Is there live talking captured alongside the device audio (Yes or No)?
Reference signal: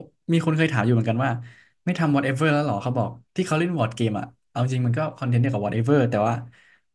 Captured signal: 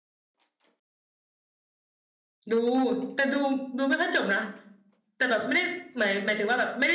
Yes